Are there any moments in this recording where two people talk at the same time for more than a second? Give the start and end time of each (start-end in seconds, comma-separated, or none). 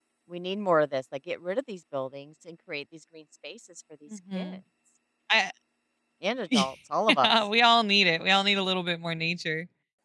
none